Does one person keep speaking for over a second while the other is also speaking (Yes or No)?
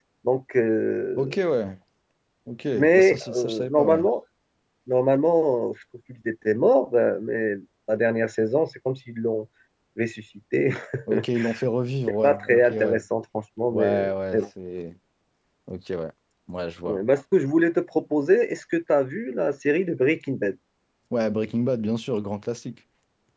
Yes